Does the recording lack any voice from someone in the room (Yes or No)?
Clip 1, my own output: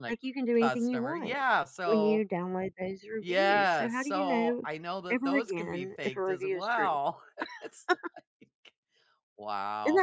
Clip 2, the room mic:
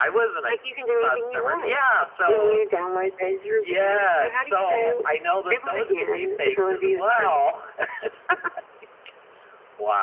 Yes